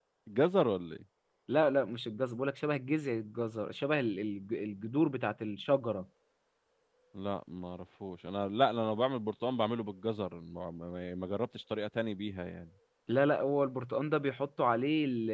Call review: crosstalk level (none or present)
none